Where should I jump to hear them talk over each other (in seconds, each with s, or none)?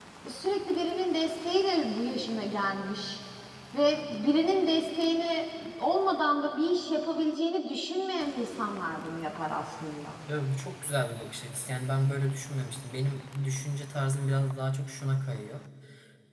none